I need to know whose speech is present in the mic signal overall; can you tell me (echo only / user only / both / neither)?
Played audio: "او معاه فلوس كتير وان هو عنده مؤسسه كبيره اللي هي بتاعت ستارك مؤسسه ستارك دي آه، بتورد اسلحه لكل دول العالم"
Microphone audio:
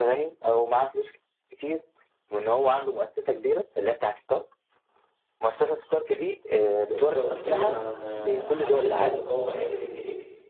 both